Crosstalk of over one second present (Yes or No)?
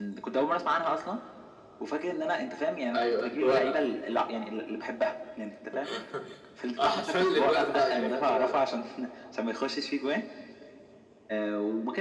Yes